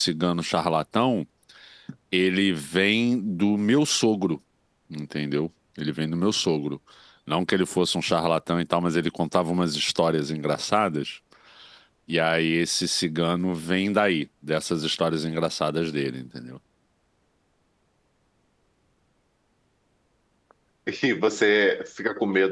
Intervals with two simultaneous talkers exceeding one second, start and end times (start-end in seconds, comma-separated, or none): none